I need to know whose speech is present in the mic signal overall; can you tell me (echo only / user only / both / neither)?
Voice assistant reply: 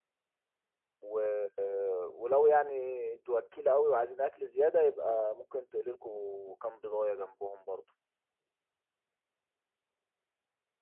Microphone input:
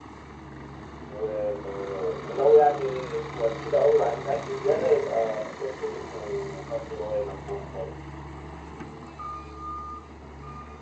echo only